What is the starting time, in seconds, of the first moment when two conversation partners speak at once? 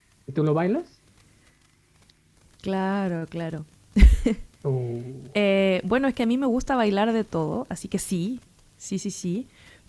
none

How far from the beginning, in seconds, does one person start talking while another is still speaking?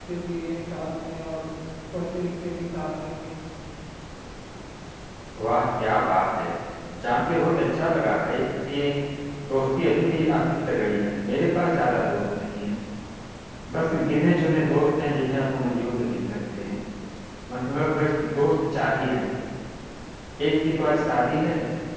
none

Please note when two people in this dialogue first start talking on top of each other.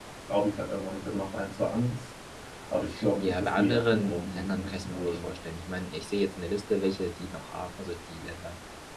3.2 s

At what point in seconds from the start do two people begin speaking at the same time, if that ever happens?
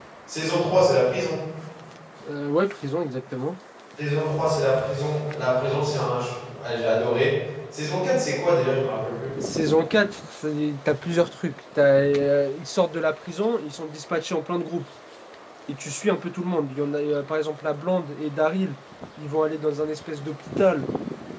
none

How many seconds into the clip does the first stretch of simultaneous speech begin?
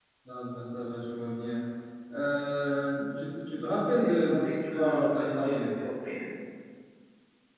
3.9 s

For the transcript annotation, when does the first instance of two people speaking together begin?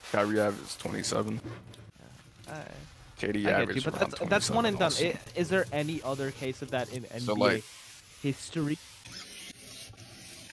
3.4 s

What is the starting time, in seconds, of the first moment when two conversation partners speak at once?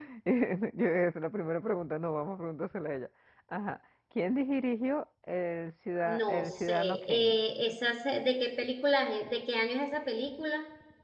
6.0 s

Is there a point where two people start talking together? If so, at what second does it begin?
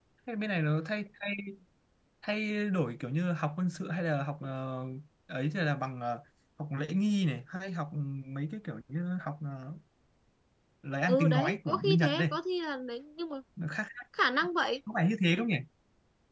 11.1 s

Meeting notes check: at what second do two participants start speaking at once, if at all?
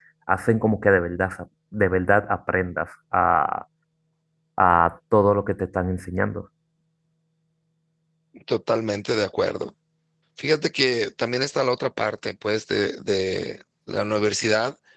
none

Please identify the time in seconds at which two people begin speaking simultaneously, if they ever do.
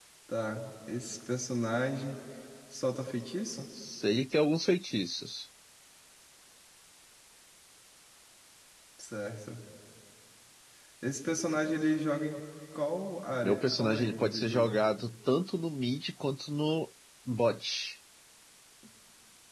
13.4 s

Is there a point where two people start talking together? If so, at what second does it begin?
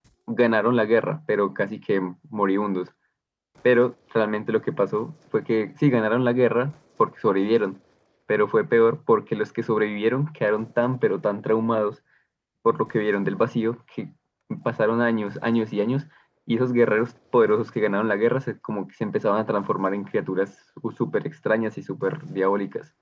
none

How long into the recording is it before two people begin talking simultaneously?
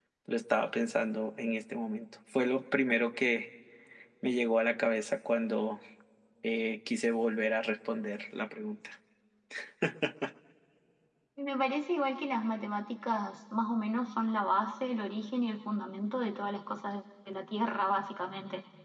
none

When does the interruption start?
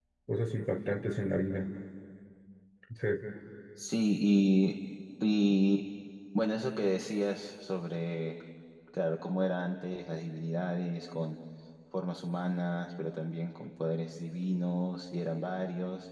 none

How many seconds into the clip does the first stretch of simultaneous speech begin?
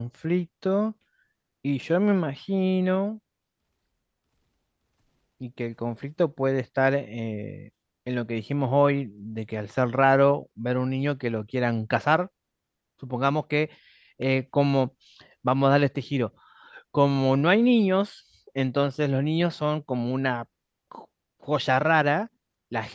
none

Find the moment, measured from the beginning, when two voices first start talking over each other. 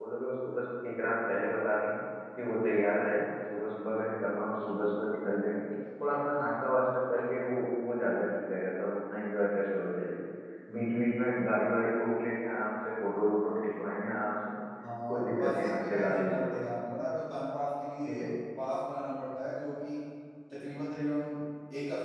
15.1 s

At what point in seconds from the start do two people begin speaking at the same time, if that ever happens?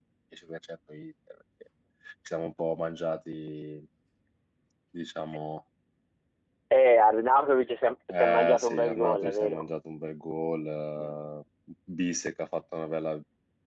8.1 s

